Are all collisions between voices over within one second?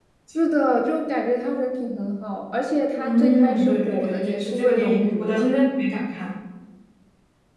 No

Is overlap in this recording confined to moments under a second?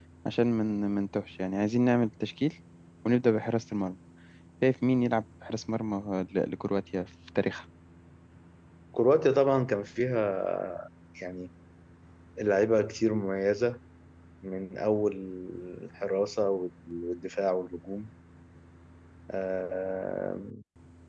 Yes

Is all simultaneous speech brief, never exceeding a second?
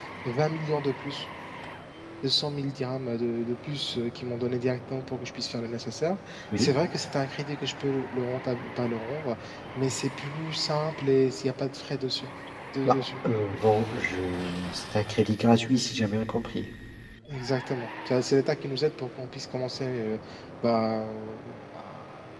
Yes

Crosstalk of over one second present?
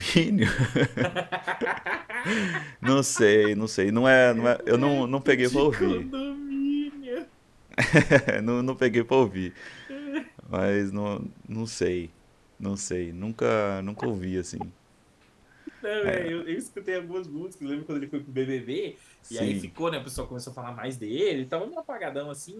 Yes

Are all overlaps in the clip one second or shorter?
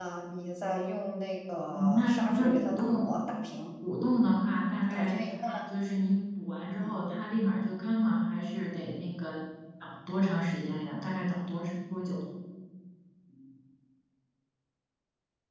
No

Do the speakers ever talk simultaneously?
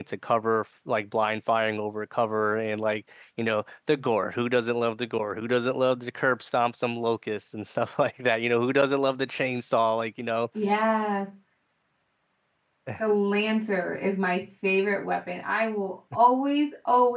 No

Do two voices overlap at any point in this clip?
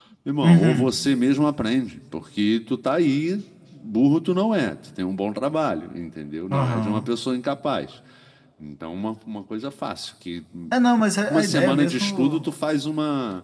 Yes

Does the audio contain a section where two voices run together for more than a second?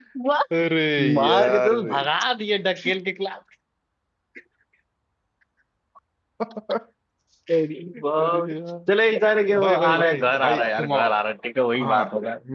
Yes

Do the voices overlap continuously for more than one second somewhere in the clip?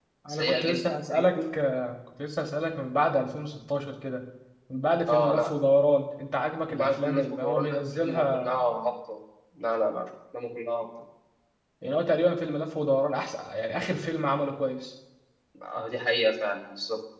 Yes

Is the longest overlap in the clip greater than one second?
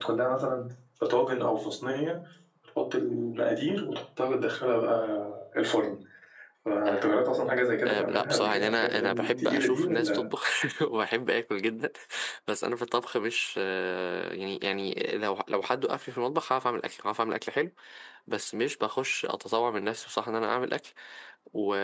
Yes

